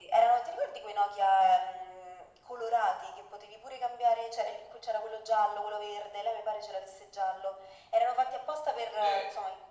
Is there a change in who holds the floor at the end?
Yes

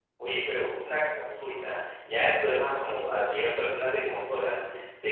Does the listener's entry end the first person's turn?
No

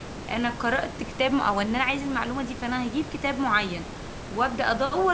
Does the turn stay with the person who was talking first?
Yes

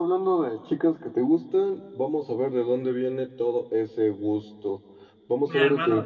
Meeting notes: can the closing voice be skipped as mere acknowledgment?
Yes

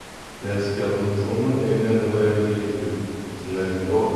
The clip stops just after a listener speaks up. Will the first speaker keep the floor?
No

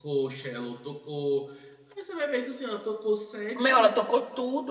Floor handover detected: Yes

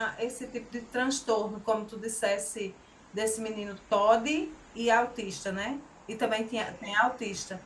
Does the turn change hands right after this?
No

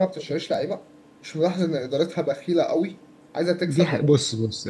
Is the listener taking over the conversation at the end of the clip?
Yes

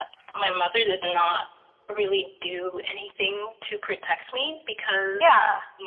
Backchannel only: Yes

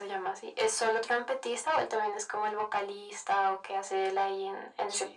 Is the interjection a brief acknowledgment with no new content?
No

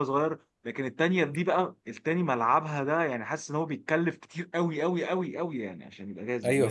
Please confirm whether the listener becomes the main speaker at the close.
Yes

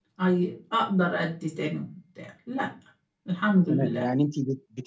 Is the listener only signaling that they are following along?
No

